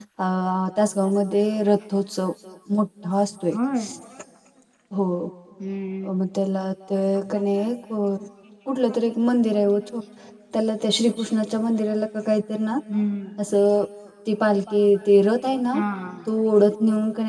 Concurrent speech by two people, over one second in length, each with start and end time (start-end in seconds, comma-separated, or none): none